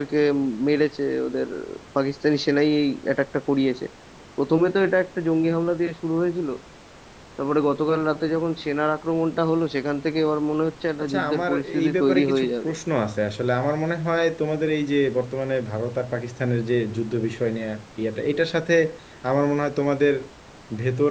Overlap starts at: 11.0 s

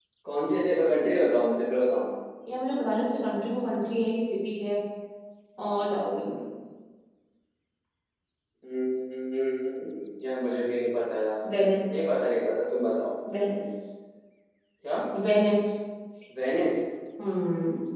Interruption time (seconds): none

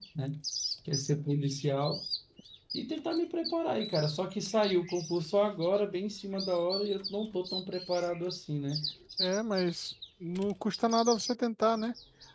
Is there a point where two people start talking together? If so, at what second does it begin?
none

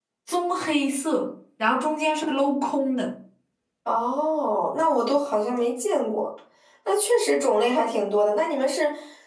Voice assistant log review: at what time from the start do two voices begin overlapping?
none

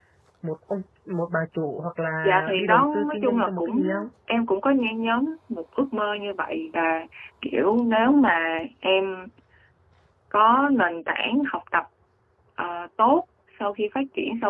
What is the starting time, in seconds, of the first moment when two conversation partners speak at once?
2.2 s

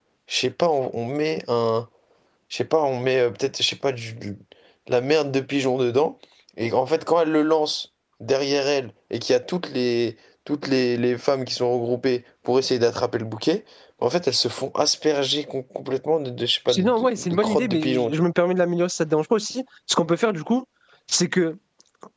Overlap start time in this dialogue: 16.7 s

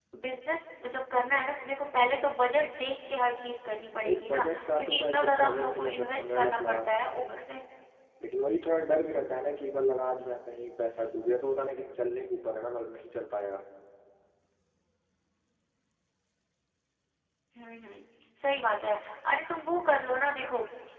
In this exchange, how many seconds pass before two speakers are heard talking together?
4.0 s

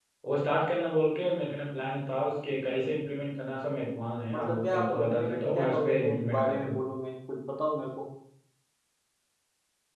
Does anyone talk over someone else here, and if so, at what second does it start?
4.3 s

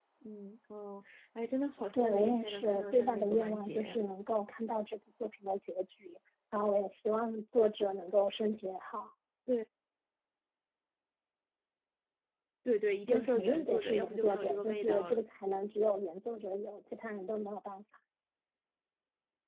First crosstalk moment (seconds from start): 1.9 s

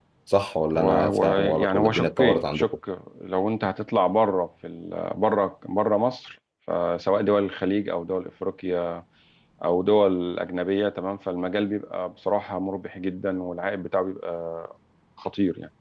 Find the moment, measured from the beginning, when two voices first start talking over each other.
0.8 s

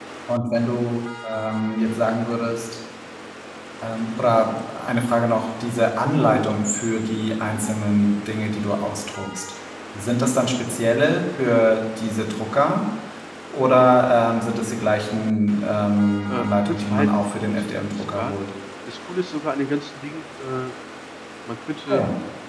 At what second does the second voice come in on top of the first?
16.3 s

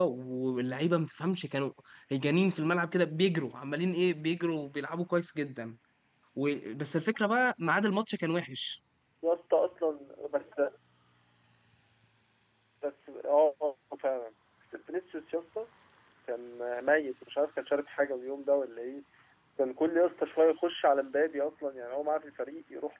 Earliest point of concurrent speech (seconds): none

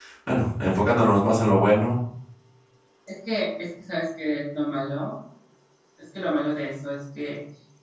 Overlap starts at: none

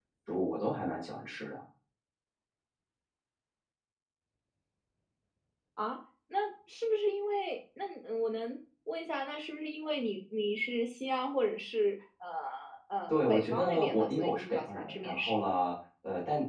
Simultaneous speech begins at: 13.1 s

